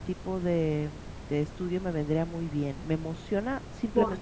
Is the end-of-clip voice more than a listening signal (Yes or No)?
Yes